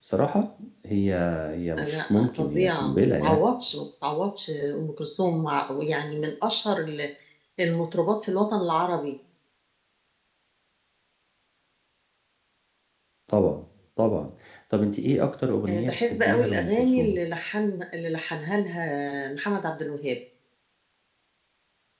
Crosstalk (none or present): present